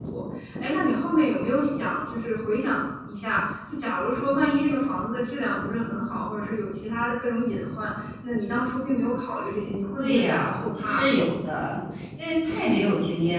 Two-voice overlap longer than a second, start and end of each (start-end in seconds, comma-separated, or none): 10.0-11.2